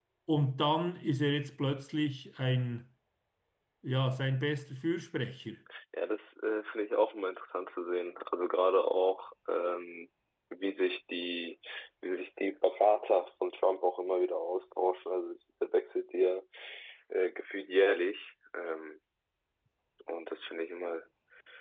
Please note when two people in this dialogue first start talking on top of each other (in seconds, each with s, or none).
none